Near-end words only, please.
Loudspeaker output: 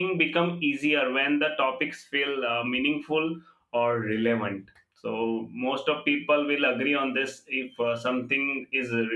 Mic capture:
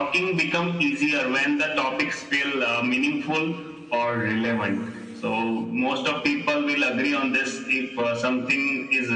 none

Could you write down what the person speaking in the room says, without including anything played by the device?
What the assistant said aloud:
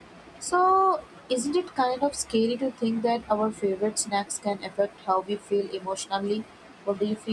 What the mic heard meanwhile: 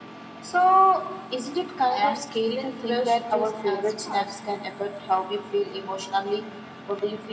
and then crush just as fast,

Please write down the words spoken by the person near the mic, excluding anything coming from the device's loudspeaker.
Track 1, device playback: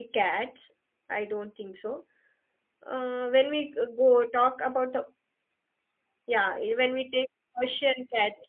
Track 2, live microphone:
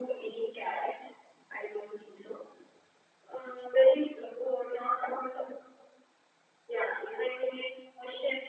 none

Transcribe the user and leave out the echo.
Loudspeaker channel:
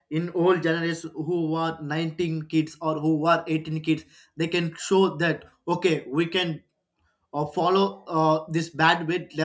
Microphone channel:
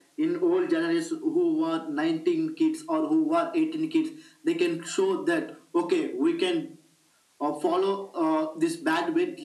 none

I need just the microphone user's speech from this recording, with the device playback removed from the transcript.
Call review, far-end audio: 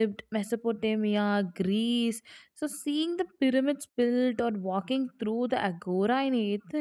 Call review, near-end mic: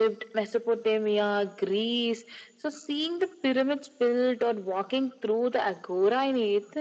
none

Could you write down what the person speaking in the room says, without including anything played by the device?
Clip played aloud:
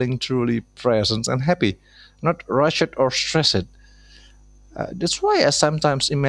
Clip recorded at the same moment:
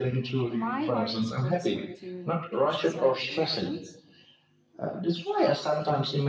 my heart is closer to beach celebrations.

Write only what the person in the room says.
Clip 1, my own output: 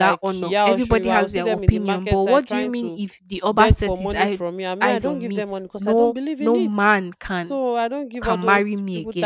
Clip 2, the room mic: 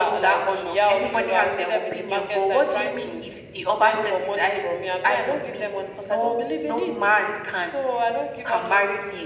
none

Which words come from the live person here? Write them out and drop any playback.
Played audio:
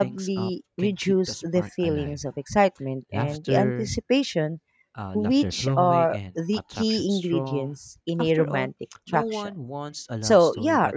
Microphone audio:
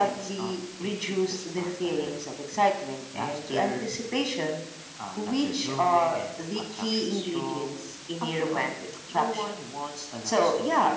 none

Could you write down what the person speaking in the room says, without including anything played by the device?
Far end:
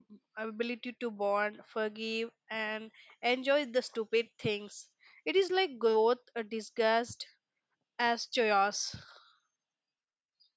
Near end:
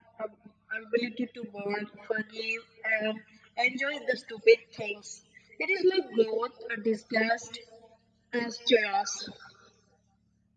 none

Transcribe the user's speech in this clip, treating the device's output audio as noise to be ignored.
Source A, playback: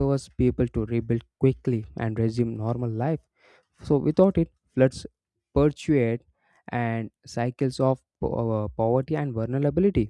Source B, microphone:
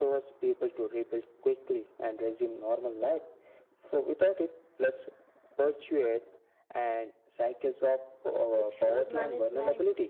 with flood management.

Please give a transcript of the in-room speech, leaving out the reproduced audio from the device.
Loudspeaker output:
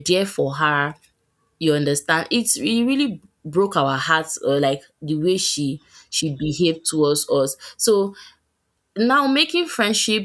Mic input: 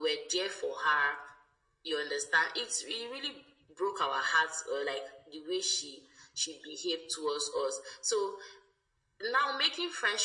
none

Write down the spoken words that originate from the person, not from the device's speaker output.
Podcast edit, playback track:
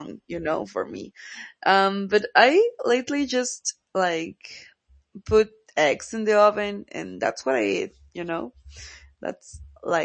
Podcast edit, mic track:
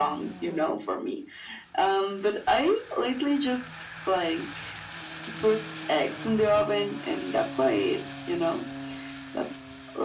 none

